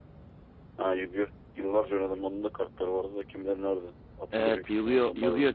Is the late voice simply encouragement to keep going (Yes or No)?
No